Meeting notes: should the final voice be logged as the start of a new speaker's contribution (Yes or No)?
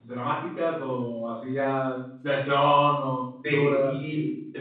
Yes